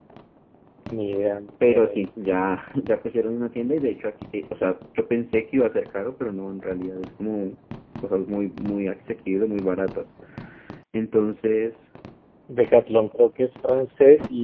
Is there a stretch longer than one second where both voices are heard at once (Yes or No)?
No